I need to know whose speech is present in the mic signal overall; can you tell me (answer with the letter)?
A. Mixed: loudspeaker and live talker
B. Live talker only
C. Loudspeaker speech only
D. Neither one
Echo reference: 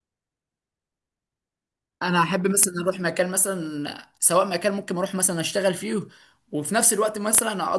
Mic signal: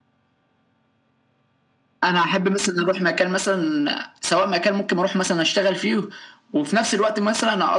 C